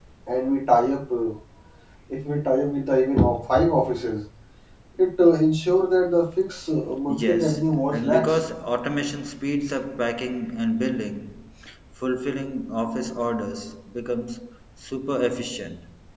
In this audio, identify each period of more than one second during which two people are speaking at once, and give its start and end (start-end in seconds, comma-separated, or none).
7.1-8.4